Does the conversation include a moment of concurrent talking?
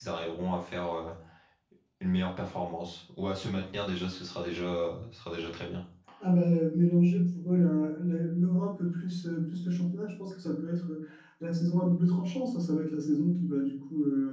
No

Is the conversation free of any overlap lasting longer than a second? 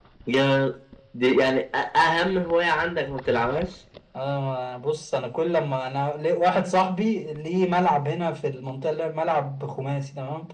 Yes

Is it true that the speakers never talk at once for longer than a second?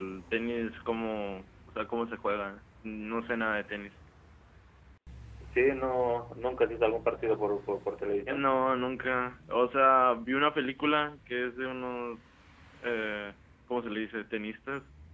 Yes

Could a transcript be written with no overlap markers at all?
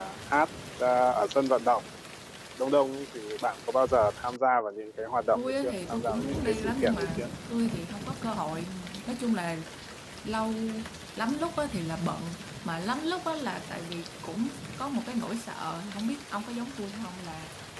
No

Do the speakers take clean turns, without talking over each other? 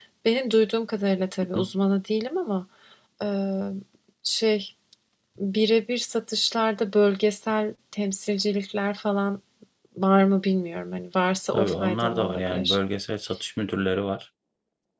No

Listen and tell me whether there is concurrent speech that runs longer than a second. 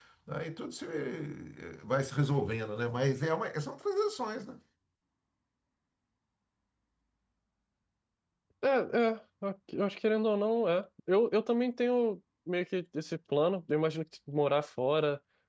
No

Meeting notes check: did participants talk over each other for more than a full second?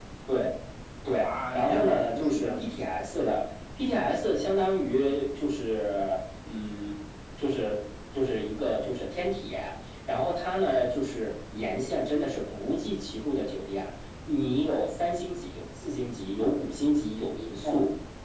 Yes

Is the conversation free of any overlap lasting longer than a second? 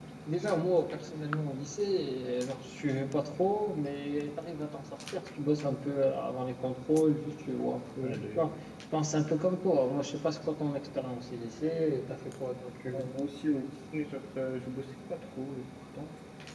Yes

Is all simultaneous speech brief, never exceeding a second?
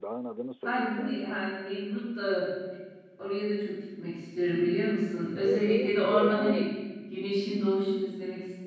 No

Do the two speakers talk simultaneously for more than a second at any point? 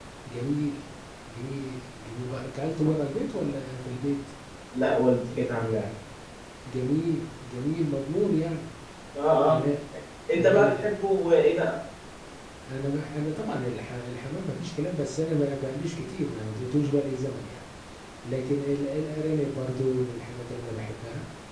No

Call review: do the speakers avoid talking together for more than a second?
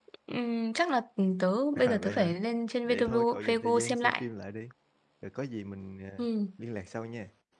No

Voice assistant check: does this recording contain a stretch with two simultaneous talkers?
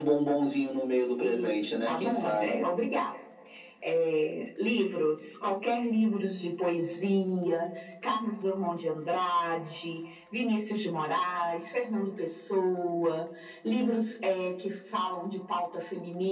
Yes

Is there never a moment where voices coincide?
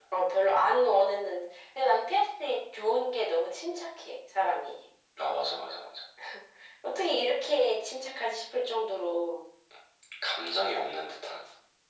Yes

